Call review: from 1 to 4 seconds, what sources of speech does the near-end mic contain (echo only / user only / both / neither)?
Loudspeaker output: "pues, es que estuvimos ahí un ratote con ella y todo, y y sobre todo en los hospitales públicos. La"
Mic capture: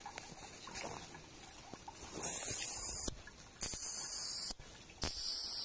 neither